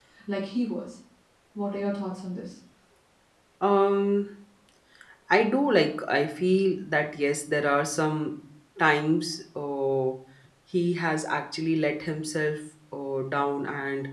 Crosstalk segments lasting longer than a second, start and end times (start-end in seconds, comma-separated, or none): none